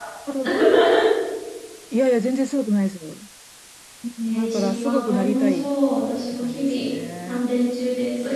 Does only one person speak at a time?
No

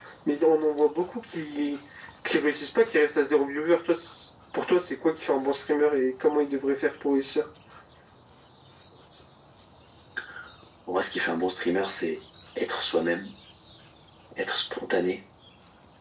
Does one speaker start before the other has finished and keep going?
No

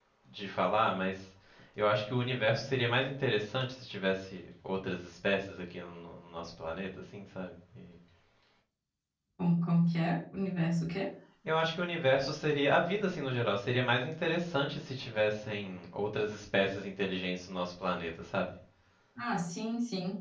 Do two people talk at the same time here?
No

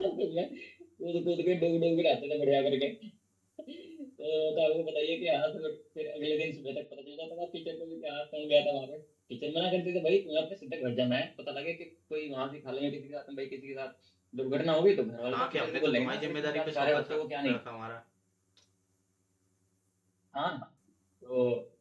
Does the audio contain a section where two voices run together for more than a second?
Yes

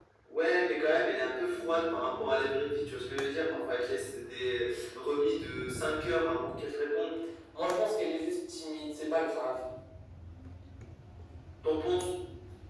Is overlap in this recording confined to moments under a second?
Yes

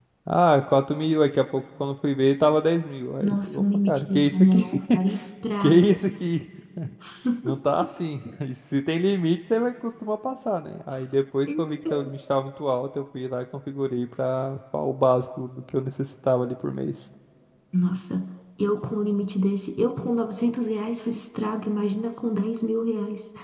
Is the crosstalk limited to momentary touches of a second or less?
No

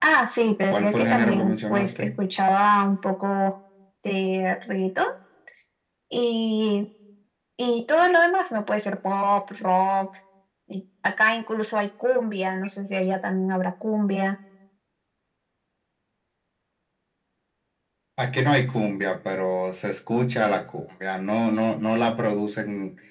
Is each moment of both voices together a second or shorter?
No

